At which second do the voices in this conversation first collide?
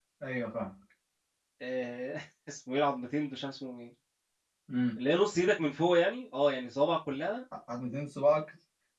none

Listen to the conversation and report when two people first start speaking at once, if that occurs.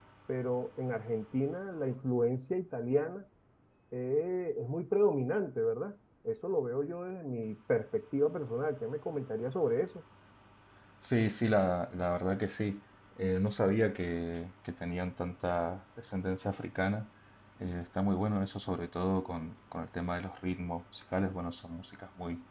none

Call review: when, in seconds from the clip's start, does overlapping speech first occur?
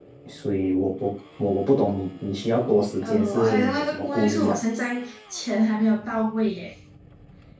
3.0 s

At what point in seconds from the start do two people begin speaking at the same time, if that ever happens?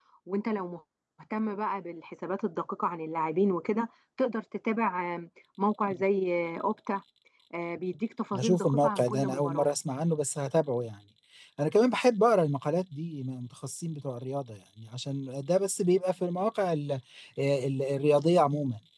8.4 s

